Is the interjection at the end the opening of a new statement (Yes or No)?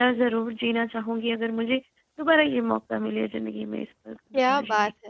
Yes